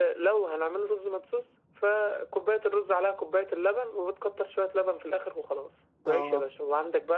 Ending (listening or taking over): listening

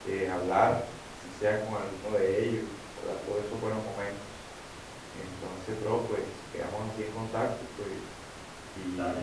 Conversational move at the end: taking over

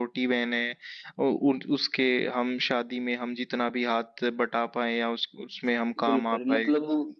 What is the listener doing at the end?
taking over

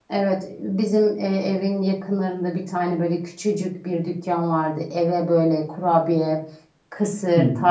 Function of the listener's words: listening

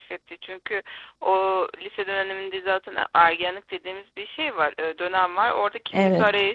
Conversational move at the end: listening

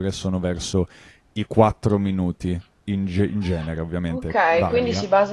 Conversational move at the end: taking over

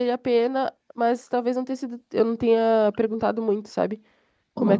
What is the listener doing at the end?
taking over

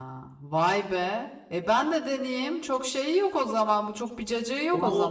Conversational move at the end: taking over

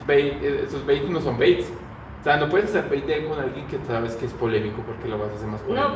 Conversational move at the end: taking over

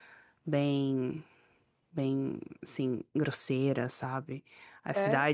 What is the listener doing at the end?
listening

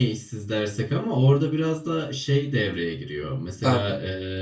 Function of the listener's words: listening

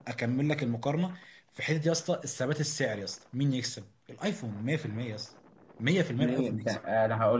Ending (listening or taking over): taking over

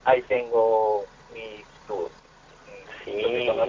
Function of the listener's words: taking over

